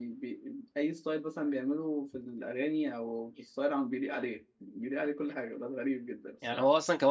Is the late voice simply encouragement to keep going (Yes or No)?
No